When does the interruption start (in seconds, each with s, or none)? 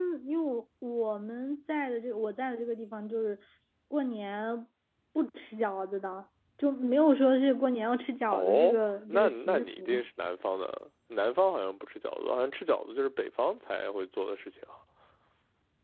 8.3 s